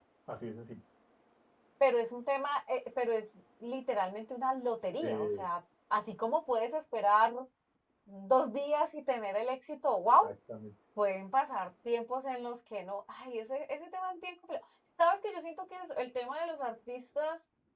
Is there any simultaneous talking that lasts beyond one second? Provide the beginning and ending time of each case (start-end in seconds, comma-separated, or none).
none